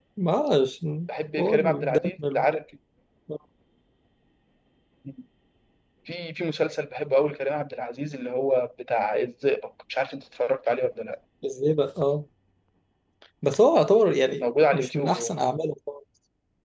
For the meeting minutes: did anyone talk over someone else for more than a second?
Yes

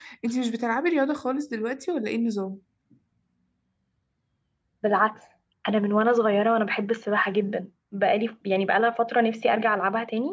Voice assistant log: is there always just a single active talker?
Yes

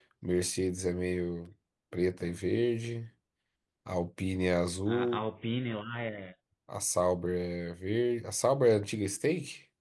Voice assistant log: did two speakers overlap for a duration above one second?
No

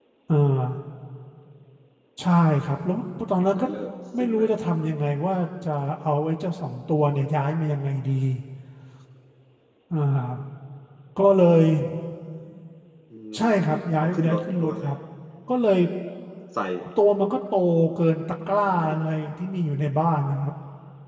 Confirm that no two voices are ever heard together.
No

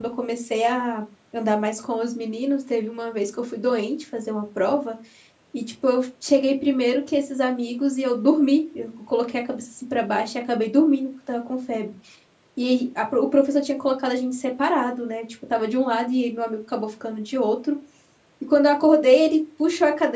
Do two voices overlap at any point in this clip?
No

